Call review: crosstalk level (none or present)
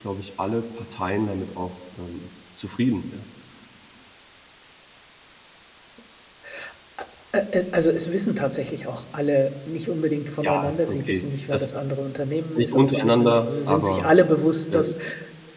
present